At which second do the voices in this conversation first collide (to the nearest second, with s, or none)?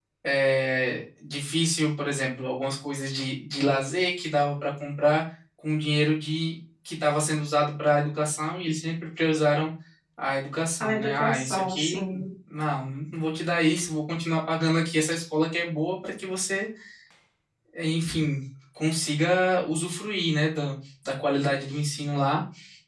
11 s